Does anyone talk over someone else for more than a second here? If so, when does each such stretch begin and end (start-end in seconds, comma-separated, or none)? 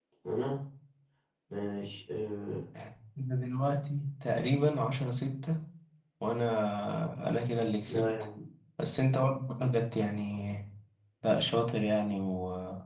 none